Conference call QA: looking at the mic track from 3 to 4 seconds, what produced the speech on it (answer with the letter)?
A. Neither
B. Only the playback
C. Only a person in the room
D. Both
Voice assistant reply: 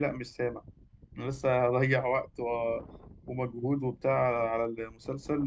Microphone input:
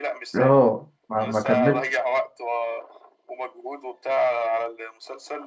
B